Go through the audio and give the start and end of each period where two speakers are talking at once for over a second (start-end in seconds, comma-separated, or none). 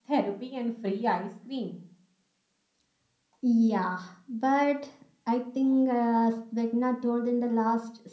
none